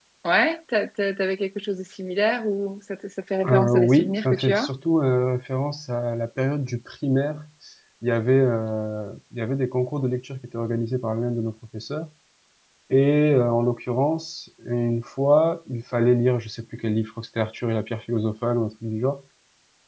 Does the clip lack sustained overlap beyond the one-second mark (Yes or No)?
No